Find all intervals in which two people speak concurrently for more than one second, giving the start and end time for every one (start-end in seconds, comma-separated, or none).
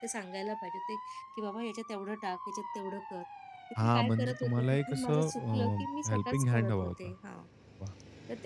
3.8-7.1